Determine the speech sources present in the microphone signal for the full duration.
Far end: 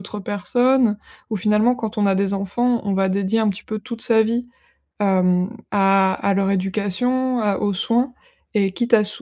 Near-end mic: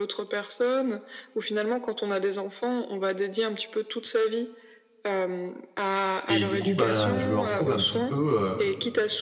both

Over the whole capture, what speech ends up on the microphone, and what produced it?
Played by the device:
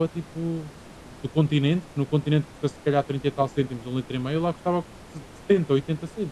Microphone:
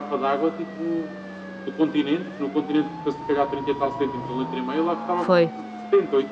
both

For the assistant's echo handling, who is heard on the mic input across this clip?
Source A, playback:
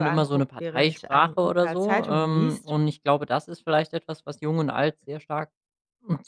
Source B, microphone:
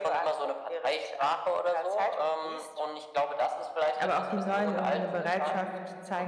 both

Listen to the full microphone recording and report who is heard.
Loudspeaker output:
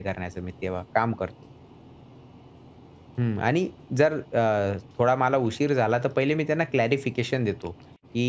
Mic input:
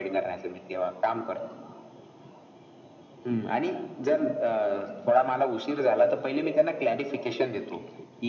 echo only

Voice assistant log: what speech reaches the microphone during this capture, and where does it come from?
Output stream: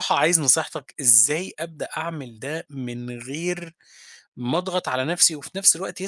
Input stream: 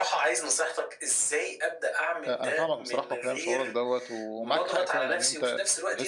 both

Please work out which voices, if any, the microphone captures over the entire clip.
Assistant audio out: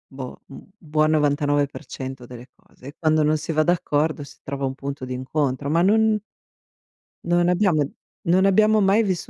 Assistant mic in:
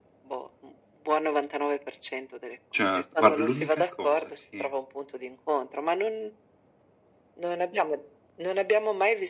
both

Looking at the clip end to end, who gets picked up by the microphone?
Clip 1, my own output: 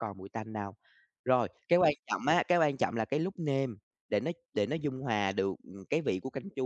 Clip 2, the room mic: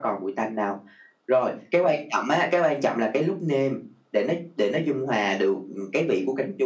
echo only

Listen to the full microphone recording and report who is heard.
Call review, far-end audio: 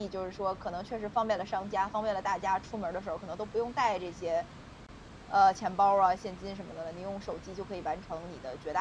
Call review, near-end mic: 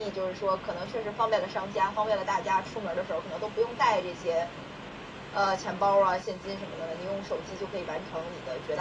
echo only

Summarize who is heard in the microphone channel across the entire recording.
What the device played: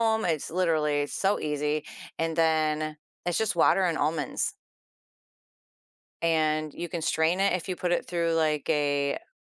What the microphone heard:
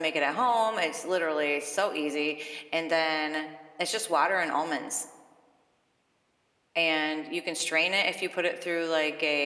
echo only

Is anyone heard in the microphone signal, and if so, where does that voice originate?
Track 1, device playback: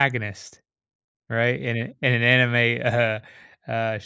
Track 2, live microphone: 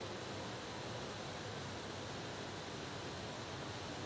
neither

